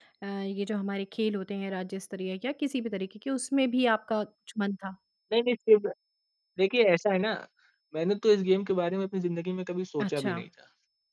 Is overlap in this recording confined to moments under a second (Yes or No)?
Yes